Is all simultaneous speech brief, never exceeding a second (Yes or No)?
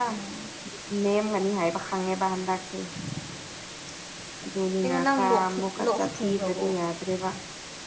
No